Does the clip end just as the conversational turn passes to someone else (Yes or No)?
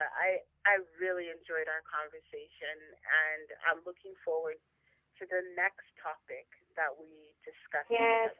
Yes